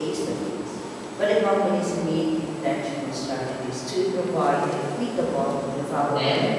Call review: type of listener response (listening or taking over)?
taking over